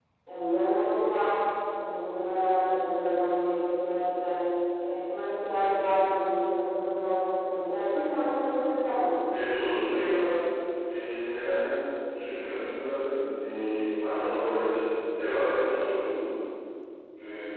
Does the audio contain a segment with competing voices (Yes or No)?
No